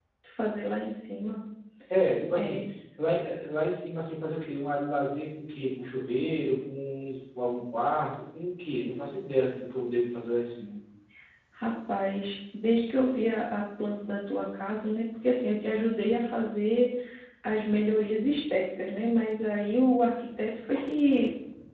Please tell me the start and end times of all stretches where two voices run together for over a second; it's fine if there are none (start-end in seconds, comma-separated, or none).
none